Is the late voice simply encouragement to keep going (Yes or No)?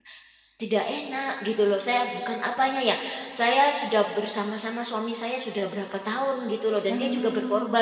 Yes